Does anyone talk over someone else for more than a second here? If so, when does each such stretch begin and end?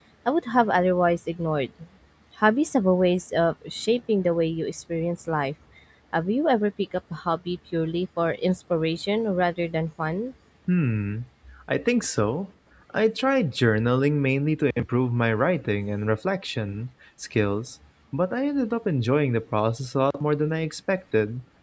none

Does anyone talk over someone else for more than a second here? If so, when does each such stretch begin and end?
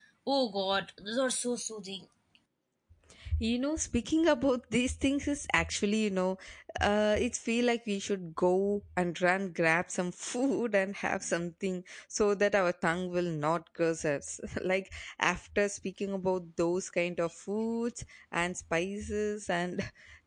none

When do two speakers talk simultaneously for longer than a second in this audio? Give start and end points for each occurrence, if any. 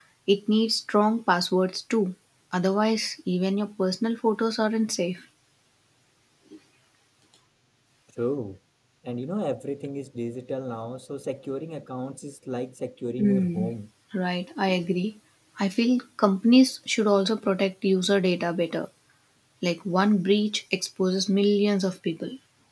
none

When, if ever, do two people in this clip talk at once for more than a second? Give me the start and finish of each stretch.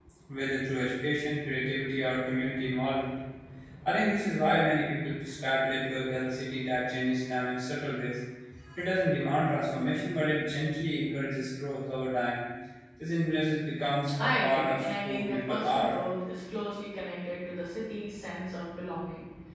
14.2-16.0

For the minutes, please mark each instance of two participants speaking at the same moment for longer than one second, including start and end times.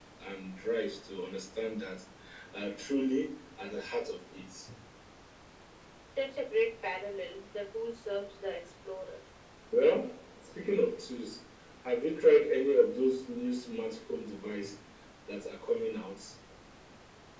none

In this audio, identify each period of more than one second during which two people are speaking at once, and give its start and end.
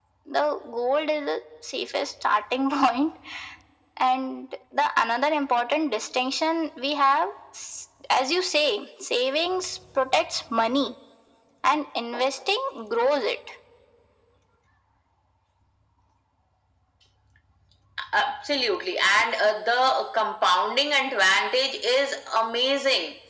none

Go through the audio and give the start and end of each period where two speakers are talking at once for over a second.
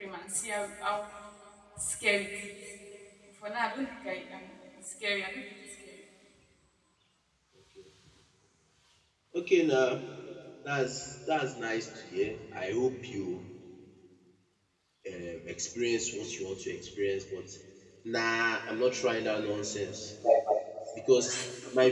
none

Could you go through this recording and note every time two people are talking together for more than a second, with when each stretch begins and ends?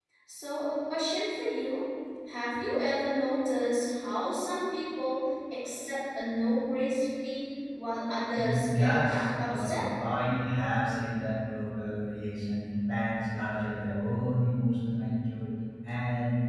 8.4-9.8

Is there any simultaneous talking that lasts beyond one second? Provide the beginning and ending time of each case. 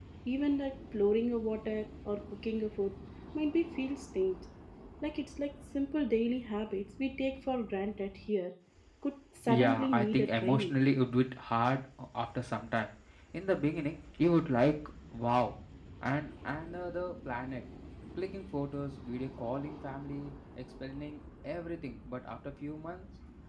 9.4-10.7

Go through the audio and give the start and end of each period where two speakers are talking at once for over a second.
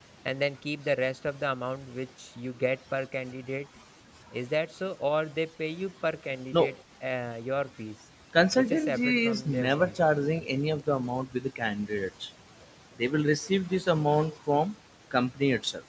8.6-10.0

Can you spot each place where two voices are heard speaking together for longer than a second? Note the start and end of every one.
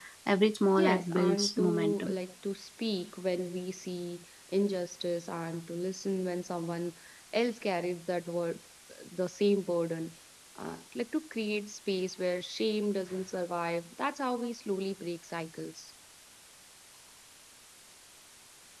0.8-2.2

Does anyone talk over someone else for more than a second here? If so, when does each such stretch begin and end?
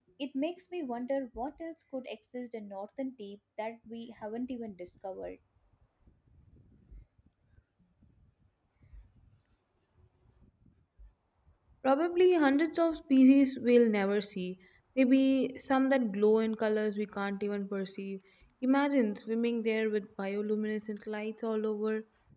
none

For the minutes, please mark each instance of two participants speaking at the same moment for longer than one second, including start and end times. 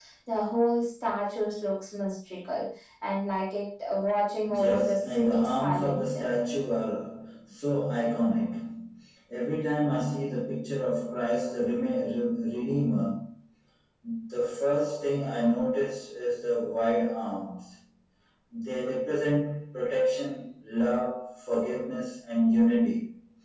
4.5-6.2

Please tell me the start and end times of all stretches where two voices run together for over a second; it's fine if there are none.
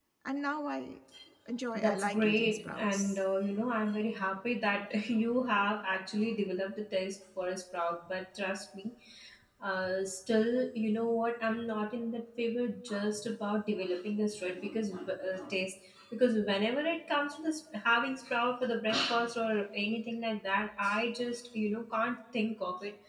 1.8-3.2

